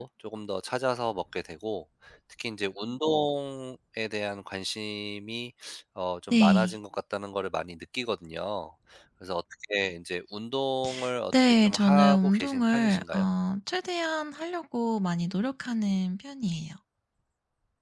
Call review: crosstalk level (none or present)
present